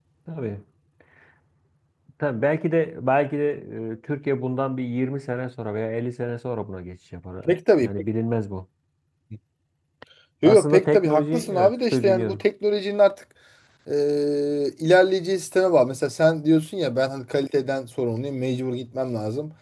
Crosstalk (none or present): present